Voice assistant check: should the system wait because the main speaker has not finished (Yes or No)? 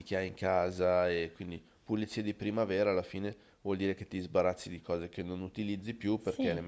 Yes